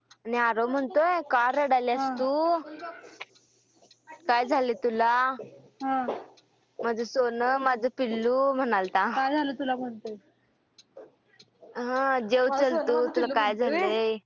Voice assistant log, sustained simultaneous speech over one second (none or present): present